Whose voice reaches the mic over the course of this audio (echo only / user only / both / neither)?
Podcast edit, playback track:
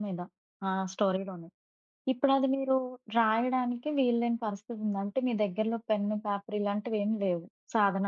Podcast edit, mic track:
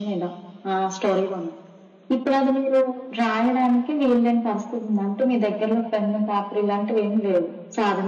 echo only